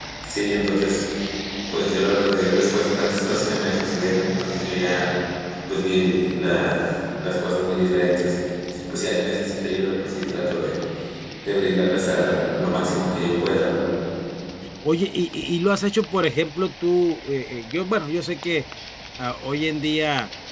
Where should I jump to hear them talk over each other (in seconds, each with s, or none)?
none